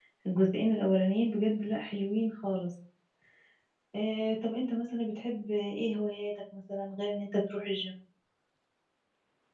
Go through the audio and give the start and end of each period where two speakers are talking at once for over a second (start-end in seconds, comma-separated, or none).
none